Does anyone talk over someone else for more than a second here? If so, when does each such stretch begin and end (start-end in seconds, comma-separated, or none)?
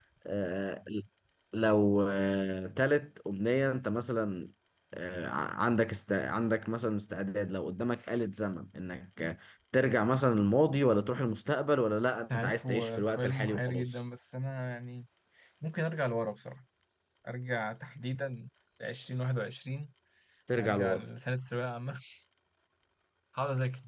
12.3-14.0